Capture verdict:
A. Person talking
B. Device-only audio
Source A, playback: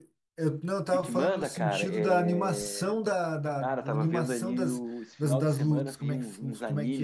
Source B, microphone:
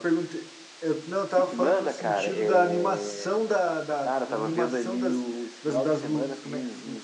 B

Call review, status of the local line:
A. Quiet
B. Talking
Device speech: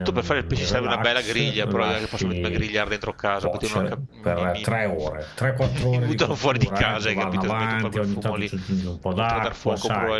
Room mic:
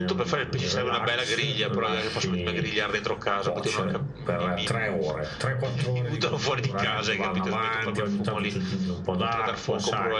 A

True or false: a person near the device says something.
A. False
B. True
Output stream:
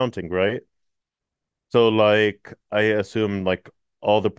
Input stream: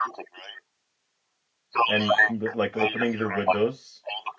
B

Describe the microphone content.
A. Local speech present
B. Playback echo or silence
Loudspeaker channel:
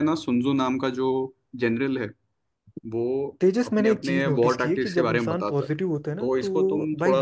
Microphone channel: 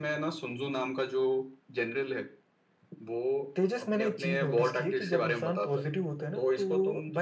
B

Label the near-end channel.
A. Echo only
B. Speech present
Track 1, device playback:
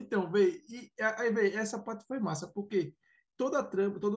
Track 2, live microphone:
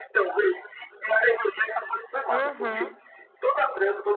B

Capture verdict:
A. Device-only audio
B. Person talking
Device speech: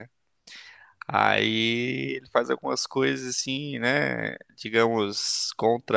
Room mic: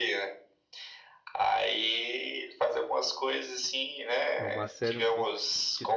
B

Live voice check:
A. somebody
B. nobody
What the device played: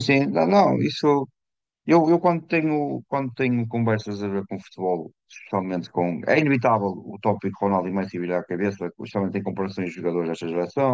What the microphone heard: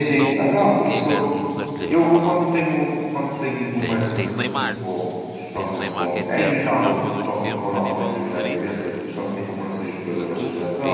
A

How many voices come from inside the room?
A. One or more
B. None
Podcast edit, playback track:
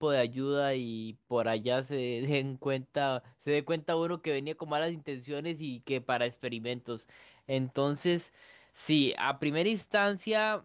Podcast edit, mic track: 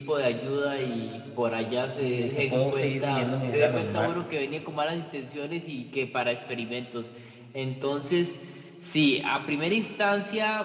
A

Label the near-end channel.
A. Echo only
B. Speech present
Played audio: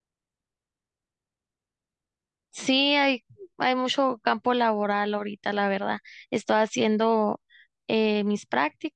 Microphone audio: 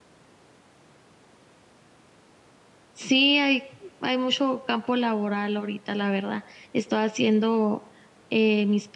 A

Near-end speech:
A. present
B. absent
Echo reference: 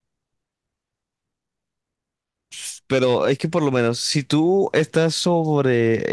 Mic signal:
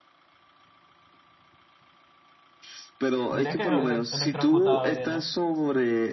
A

